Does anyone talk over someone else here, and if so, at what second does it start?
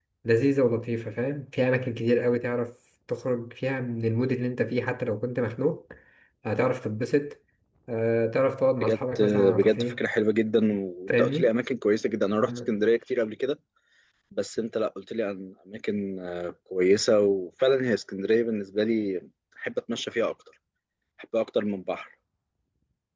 9 s

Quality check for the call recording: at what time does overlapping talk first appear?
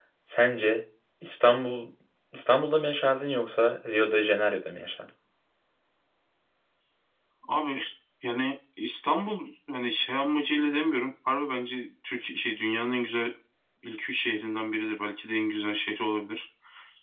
none

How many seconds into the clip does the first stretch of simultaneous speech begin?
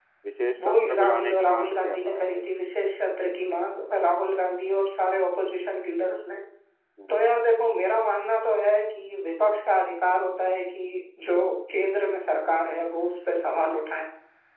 1 s

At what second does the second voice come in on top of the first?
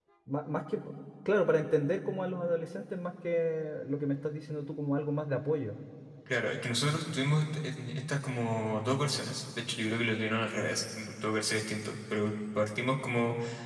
none

